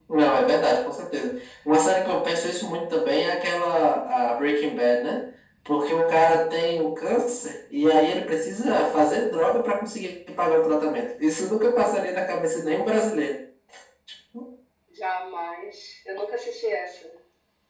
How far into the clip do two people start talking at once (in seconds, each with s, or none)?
none